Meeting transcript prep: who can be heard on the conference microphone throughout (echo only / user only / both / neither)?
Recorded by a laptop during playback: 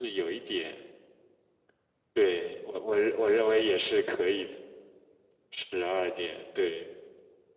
echo only